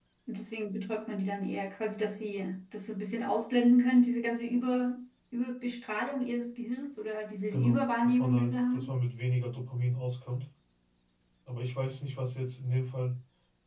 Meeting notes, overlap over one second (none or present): present